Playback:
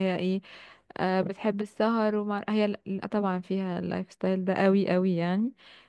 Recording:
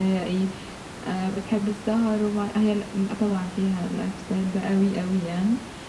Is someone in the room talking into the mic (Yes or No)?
No